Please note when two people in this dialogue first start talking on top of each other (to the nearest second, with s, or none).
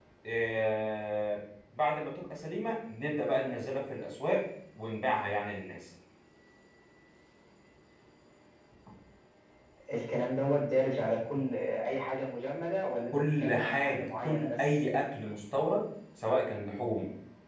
13 s